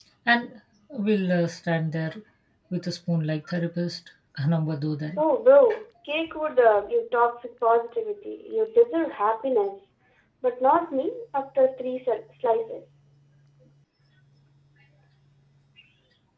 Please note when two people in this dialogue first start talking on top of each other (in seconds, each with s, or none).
none